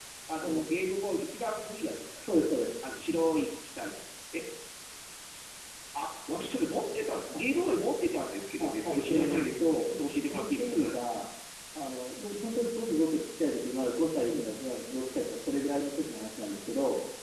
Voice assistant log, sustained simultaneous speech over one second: present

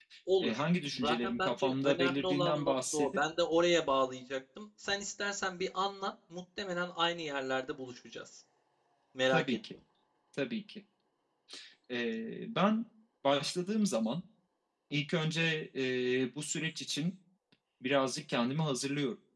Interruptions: present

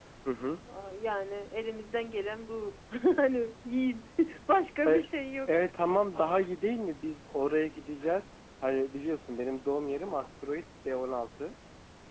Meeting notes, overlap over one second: none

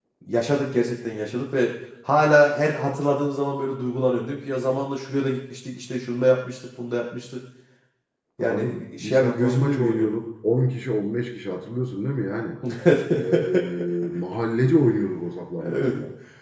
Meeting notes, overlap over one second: present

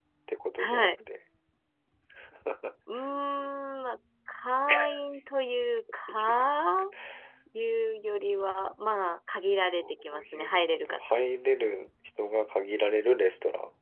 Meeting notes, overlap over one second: present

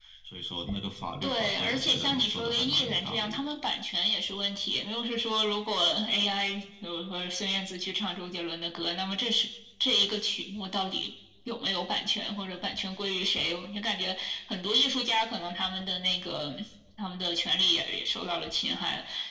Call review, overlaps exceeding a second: present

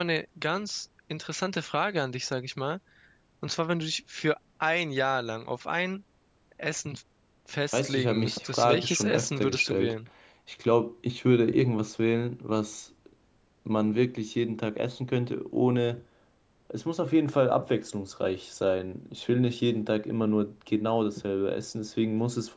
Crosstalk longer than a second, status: present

